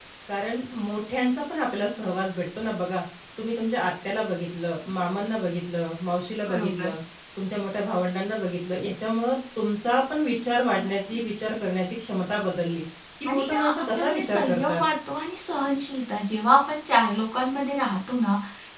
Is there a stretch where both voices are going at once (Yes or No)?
Yes